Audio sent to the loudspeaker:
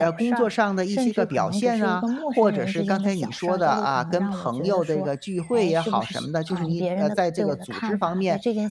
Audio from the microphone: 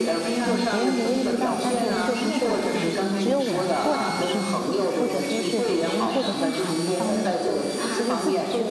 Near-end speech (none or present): present